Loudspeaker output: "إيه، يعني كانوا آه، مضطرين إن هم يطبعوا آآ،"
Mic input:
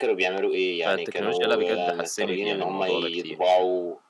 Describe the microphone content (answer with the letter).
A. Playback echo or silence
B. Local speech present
B